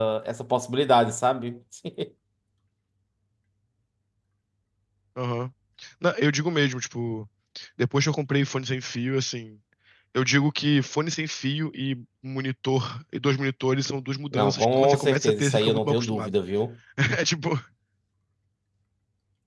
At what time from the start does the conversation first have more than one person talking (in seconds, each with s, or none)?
14.3 s